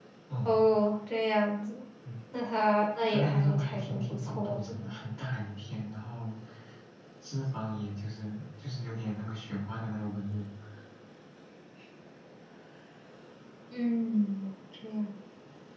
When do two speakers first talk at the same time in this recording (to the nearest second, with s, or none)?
3 s